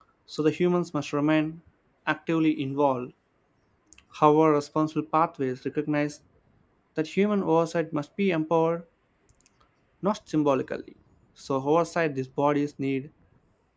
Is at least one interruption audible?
No

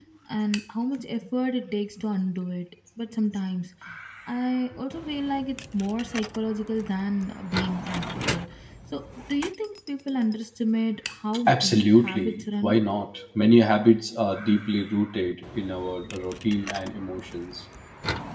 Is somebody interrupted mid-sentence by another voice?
Yes, from 11.5 s

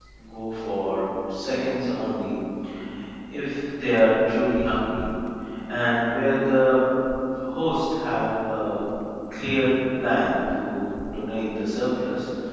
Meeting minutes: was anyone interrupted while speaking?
No

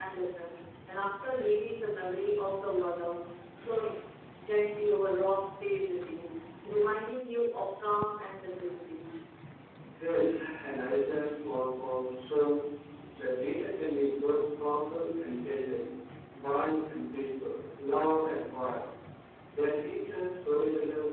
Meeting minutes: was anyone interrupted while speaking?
No

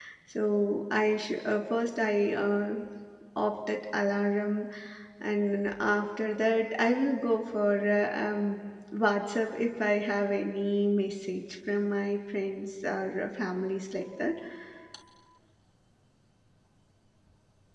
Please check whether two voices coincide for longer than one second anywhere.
No

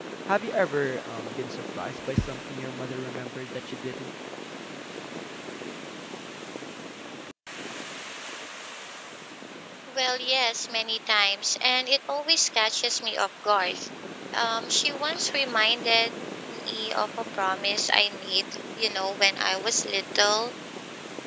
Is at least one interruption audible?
No

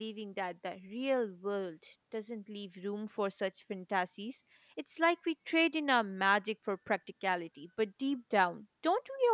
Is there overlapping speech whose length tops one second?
No

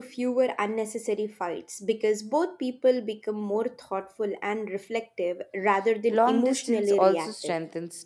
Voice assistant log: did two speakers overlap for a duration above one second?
Yes, from 6.1 s

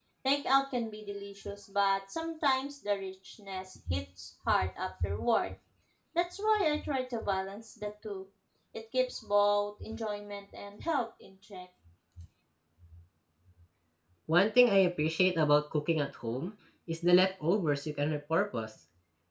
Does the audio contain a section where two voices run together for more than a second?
No

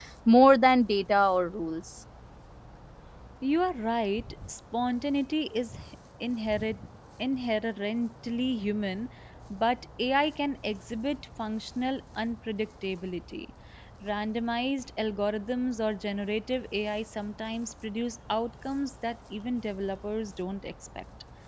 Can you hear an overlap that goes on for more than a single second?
No

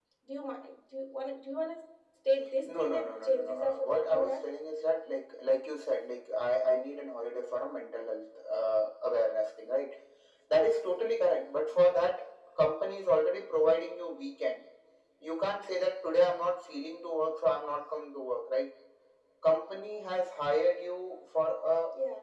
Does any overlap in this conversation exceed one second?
Yes, from 2.6 s

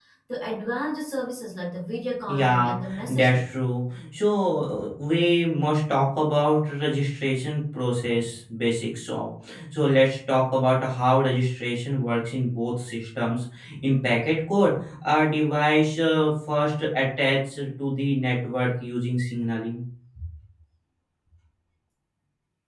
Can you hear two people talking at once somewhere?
Yes, from 2.3 s

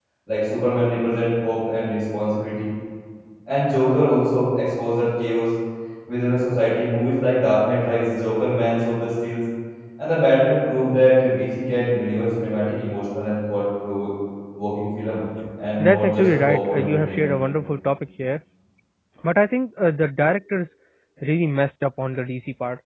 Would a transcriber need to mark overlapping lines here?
Yes, from 15.8 s

